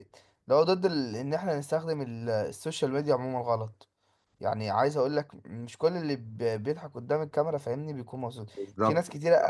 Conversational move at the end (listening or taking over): listening